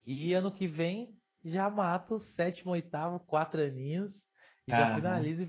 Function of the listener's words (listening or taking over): listening